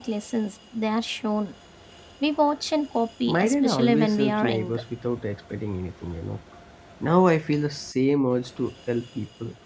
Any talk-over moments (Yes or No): Yes